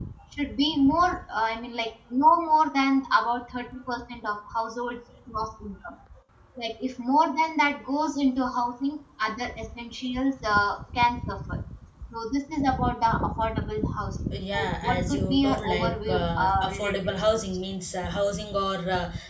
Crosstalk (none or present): present